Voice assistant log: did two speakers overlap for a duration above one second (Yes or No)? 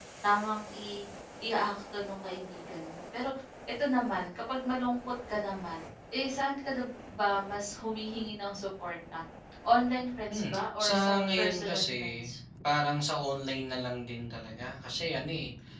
Yes